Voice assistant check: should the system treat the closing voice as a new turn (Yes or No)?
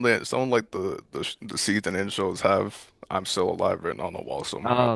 Yes